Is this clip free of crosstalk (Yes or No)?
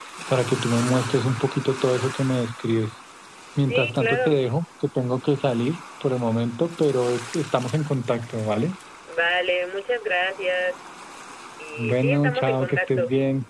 No